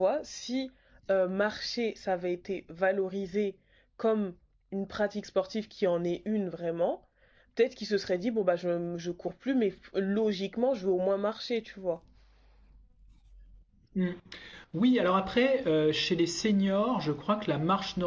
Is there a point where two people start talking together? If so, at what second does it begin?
none

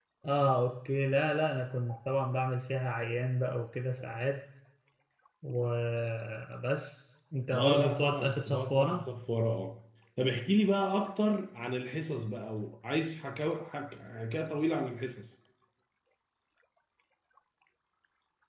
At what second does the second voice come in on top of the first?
8 s

